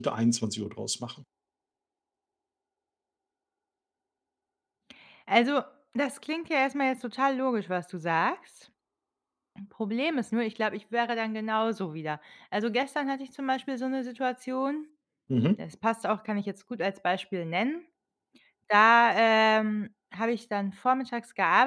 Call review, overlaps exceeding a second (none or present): none